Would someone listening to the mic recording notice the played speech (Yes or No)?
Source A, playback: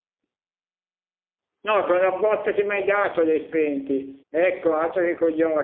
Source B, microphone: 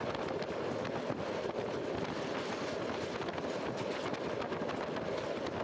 No